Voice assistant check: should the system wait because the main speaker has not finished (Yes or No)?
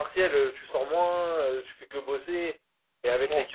Yes